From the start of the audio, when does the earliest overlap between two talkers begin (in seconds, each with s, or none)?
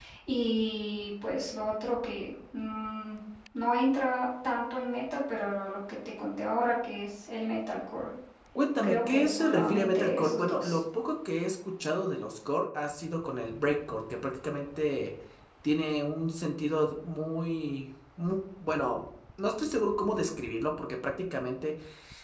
8.8 s